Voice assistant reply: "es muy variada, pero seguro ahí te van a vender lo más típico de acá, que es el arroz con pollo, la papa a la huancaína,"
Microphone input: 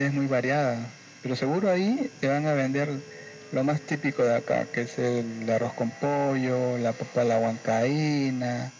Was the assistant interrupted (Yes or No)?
No